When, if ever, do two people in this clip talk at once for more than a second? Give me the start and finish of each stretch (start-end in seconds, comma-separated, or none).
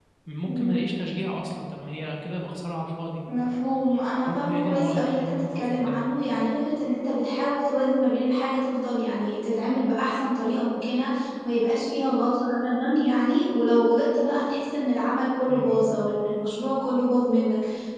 4.2-6.0